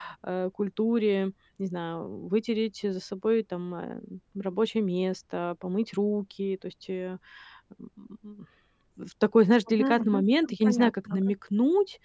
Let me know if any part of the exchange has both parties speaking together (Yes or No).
Yes